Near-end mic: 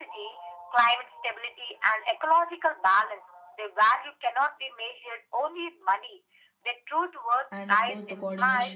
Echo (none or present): present